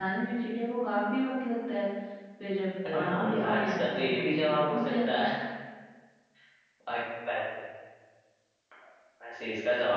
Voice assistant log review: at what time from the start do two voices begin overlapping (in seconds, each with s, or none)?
2.9 s